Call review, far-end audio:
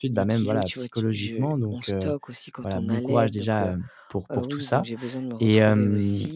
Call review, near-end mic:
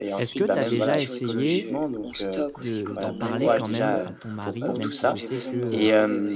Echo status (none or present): present